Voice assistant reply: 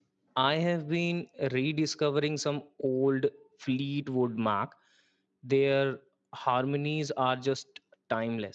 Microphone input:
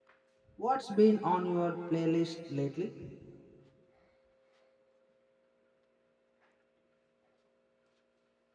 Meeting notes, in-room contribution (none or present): present